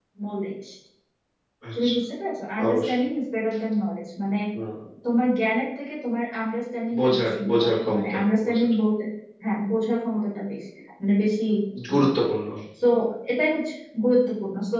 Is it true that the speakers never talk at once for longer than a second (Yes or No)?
No